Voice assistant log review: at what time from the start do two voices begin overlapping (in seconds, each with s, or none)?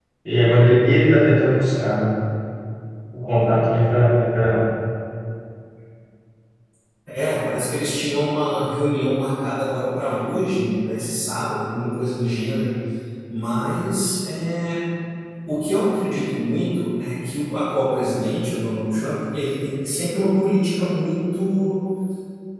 none